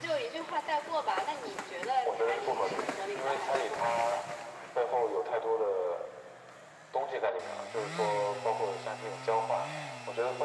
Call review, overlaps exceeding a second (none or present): present